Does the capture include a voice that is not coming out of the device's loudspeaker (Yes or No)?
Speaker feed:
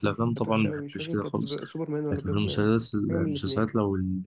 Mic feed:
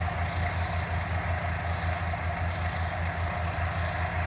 No